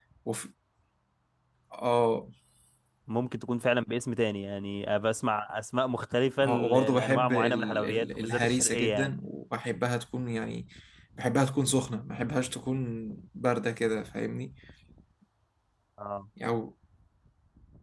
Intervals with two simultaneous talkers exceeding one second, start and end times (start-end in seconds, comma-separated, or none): 6.4-9.1